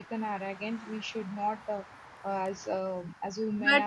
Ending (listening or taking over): taking over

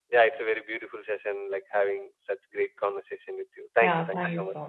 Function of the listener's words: taking over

